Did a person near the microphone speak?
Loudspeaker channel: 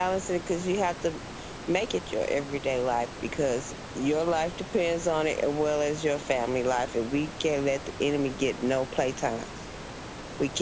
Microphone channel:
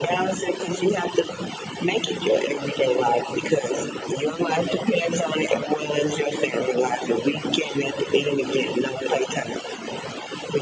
No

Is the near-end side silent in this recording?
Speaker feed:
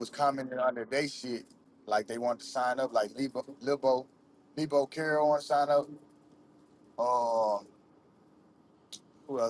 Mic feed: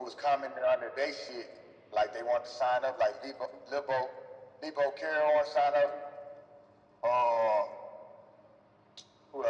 Yes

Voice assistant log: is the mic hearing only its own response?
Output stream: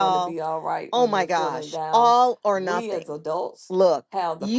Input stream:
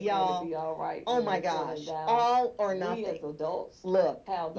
Yes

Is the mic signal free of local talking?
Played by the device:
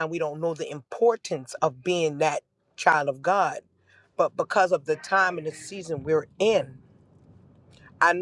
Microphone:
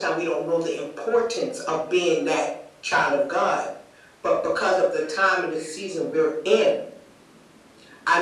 Yes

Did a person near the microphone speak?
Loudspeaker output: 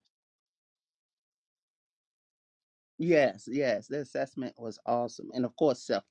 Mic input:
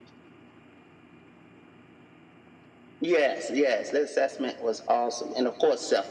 No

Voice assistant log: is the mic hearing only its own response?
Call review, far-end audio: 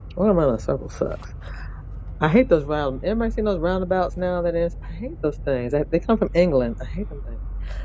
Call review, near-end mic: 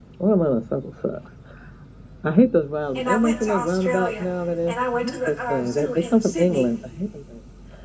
No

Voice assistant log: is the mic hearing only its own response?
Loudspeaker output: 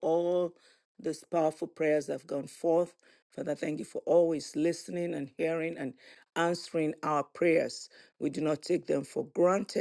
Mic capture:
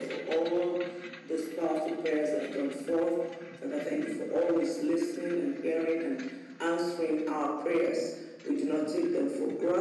Yes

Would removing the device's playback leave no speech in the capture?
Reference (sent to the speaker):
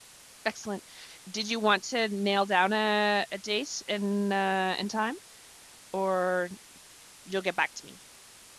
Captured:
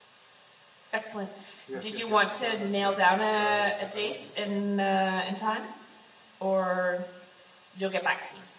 No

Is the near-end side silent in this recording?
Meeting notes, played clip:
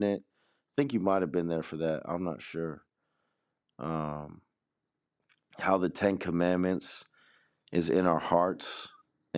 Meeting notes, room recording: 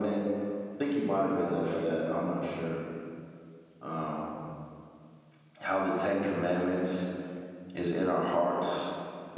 Yes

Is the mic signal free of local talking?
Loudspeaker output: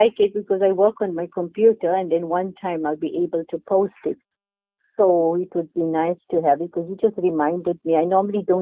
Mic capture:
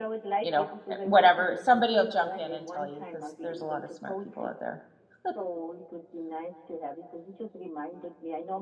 No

